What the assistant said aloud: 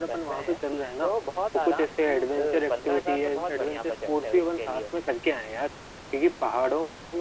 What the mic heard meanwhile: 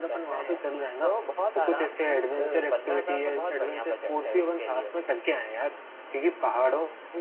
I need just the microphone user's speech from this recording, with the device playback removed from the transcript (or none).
none